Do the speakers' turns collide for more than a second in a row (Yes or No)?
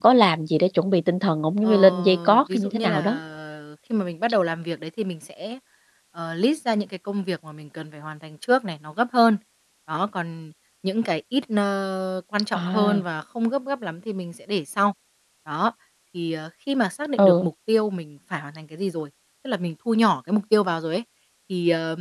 Yes